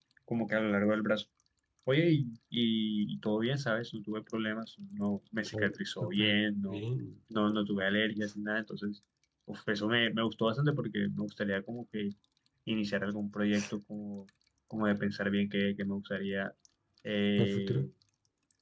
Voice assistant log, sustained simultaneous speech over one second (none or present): present